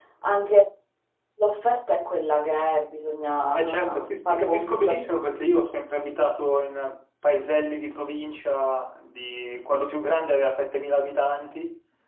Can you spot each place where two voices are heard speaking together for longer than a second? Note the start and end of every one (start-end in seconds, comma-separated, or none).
3.5-5.0